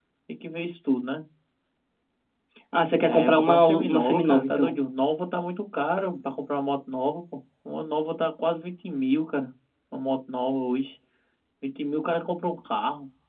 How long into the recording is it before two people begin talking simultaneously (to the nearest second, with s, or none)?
3 s